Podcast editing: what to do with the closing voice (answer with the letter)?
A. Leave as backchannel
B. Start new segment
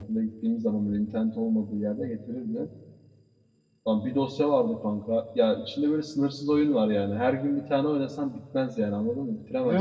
A